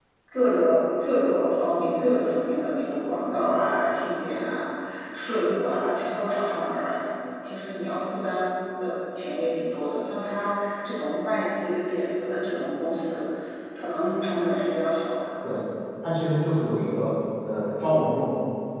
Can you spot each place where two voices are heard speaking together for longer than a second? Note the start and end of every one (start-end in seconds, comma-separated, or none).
none